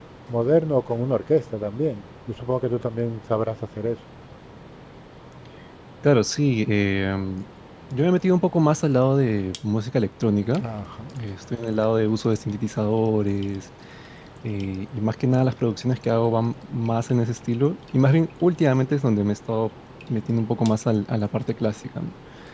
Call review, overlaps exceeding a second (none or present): none